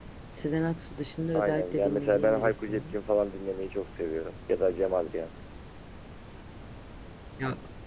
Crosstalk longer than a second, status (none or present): present